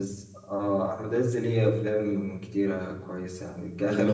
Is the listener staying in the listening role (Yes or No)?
Yes